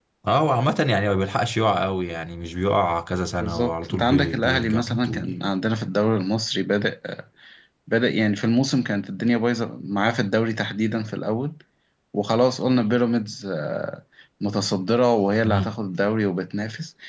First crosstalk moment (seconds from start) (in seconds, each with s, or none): 3.4 s